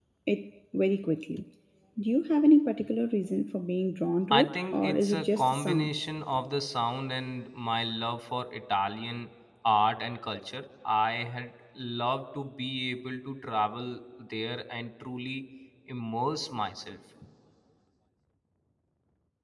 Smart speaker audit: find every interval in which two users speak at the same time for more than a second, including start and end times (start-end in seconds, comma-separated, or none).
4.3-6.0